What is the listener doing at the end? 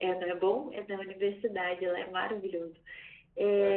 listening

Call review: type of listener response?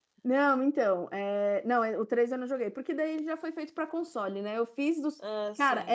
listening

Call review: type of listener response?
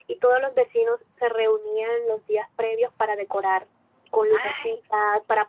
listening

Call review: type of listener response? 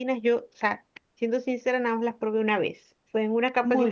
listening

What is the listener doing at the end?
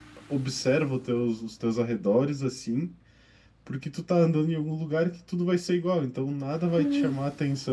listening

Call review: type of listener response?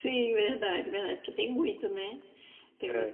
listening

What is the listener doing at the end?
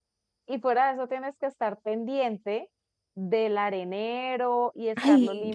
listening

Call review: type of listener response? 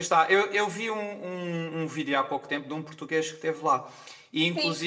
taking over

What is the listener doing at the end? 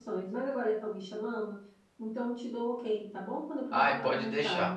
taking over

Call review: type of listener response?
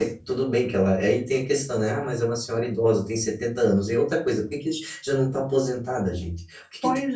taking over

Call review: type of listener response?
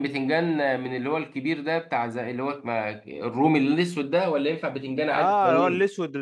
taking over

